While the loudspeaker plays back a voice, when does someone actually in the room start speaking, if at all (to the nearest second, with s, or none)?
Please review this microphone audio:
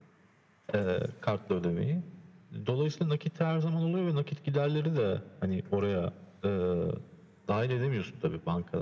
none